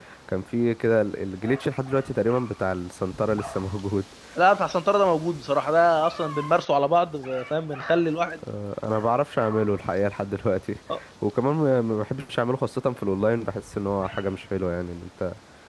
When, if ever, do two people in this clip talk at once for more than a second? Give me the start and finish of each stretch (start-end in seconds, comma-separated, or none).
none